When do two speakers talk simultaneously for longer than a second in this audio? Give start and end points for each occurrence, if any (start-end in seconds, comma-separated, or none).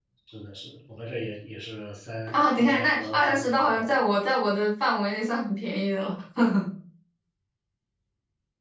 2.3-3.9